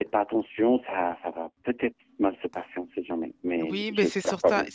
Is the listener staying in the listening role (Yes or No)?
No